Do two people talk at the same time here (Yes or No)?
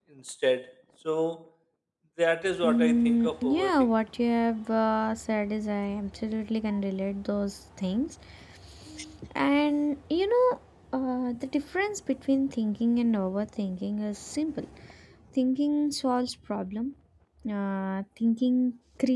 Yes